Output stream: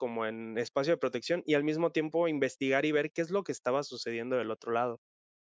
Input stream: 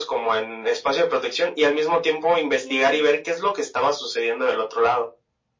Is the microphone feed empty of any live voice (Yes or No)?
No